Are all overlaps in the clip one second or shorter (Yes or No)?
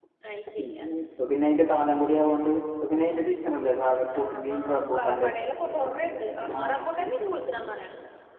No